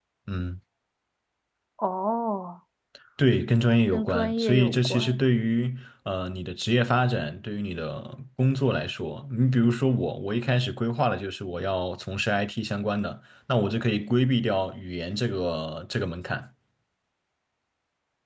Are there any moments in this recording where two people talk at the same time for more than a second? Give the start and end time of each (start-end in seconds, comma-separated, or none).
3.9-5.2